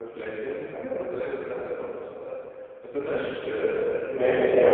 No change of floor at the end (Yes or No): No